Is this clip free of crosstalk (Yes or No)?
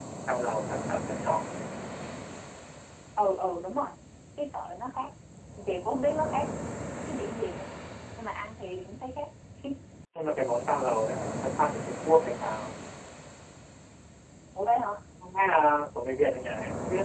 Yes